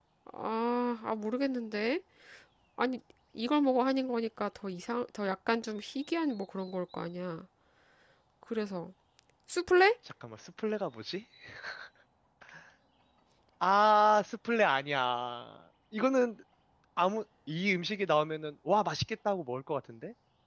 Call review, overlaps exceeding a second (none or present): none